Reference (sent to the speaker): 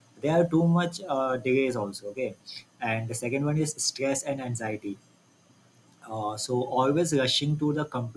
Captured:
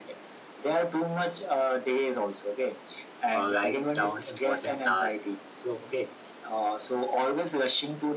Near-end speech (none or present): present